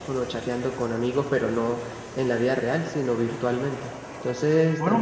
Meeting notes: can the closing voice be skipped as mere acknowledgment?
No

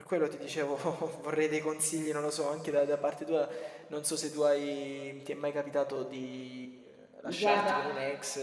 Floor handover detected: No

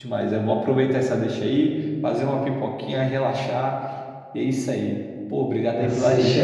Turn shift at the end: Yes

